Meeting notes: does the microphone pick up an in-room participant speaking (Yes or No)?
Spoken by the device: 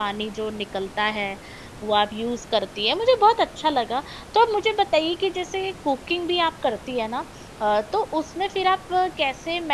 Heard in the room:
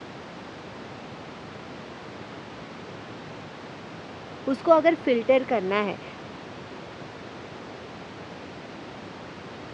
Yes